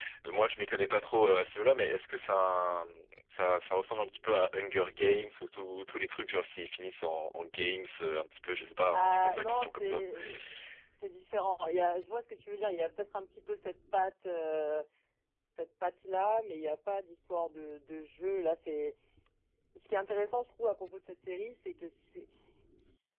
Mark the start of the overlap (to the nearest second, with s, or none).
9 s